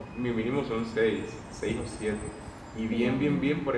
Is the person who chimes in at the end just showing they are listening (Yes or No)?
Yes